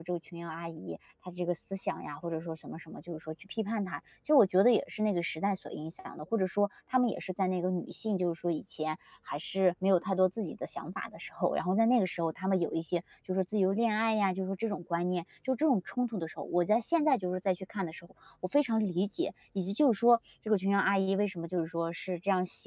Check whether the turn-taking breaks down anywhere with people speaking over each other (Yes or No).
No